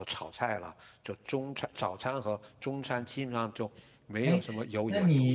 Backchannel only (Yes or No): No